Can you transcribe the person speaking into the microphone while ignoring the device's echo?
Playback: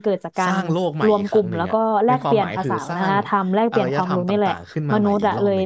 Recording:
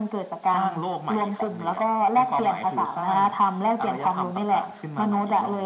none

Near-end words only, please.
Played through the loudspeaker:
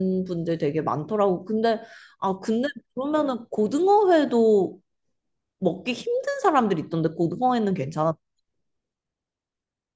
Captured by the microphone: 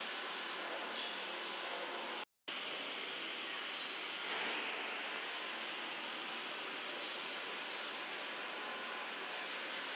none

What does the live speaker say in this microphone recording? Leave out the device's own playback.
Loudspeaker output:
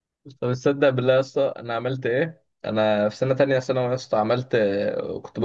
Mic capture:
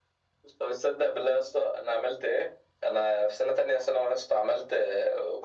none

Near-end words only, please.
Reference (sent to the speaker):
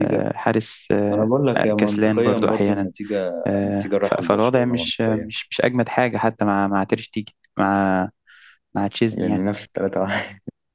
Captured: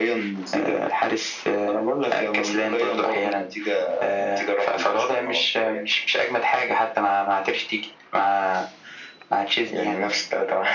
none

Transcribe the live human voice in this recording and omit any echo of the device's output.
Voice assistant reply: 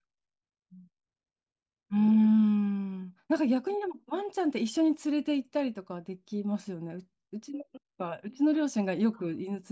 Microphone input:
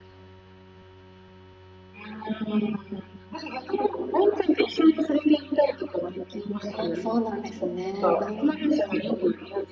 あ、そうなんですね。うん。

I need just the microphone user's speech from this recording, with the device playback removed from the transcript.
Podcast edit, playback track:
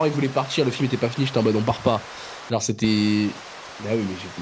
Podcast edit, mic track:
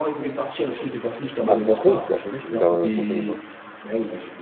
À Foncombe? Bah, je sais plus s'il les ramène à Foncombe ou pas.

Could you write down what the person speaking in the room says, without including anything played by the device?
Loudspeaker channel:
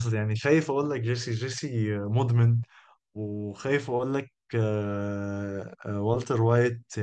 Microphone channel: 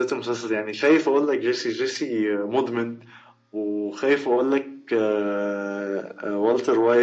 none

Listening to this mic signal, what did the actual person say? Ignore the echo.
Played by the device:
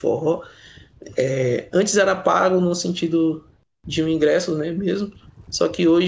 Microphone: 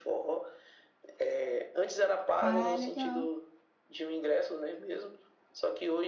Ah, legal.

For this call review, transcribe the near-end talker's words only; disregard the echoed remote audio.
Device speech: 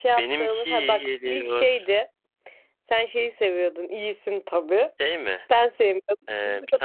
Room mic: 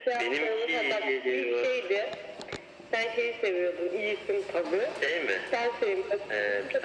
none

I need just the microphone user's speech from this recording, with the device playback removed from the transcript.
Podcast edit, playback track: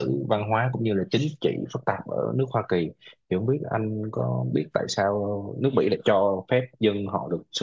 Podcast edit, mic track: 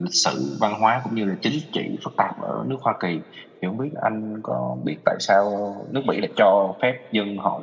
none

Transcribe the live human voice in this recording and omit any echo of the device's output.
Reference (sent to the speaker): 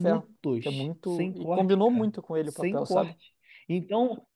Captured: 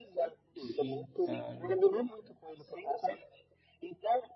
sim, cara.

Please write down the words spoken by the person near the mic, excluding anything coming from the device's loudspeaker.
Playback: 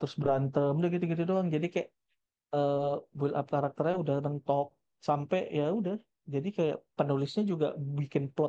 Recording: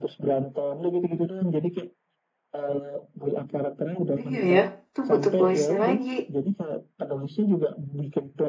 Oh, Iya ya, itu butuh voice-nya lagi.

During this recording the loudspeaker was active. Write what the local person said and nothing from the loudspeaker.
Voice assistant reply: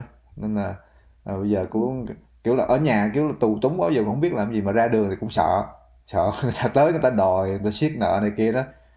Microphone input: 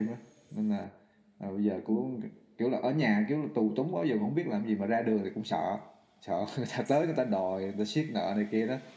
none

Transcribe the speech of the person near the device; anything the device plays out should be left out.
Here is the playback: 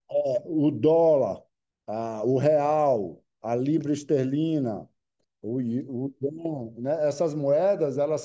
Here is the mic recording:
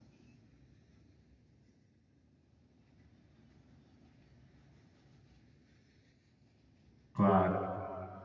claro.

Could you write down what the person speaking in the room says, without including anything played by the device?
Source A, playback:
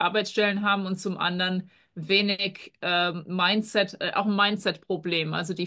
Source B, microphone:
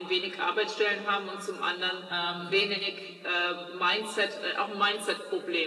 ähm,

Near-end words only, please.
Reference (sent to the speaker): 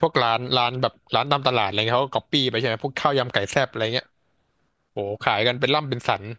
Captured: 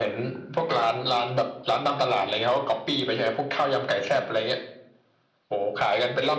none

